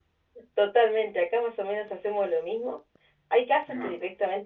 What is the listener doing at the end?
listening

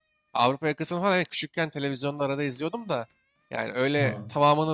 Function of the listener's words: listening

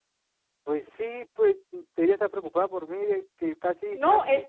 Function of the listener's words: taking over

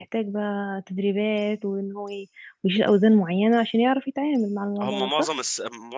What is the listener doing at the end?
taking over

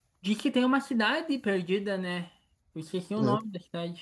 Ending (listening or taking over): taking over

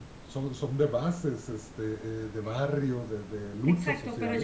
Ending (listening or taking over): taking over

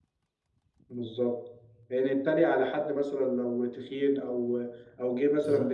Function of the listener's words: listening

